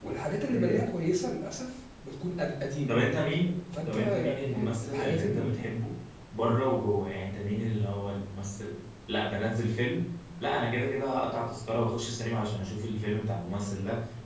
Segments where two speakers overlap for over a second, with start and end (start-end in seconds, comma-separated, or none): 3.9-5.6